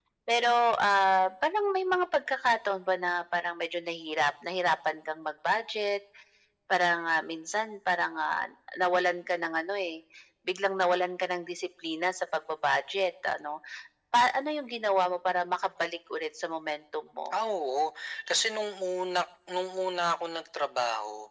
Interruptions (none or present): none